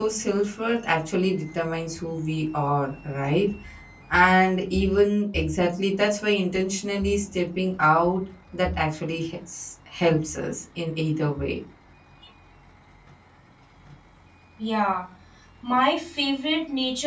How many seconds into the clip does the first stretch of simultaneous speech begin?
none

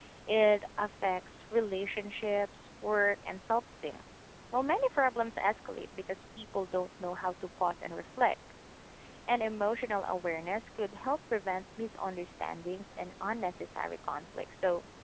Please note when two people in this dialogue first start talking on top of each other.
none

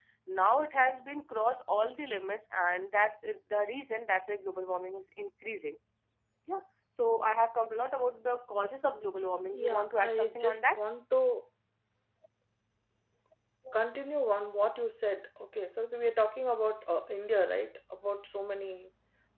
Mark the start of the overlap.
9.5 s

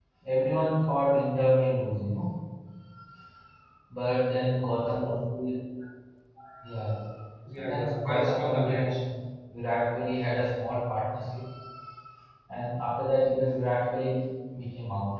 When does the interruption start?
7.6 s

